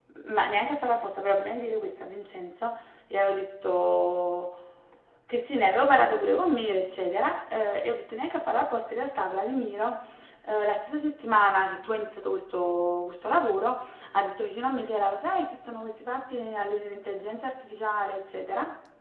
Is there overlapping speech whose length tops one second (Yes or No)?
No